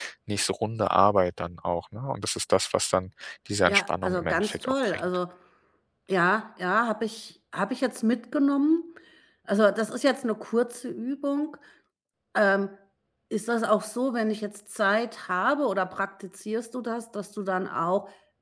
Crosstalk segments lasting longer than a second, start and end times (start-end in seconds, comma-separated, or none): 3.7-5.0